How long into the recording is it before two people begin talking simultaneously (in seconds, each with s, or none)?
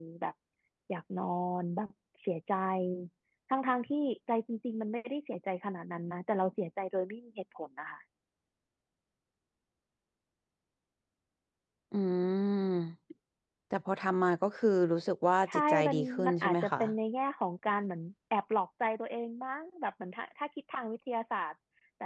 15.5 s